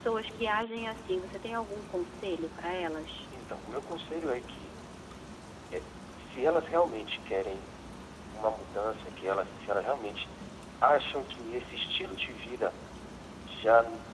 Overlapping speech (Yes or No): No